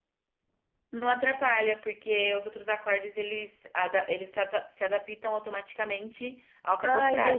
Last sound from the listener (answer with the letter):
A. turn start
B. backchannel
A